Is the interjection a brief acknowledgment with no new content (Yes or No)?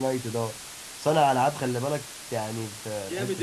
No